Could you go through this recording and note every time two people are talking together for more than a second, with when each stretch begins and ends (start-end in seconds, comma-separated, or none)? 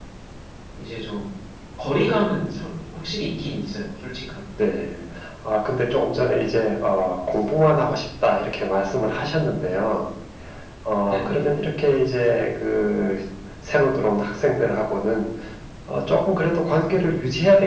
none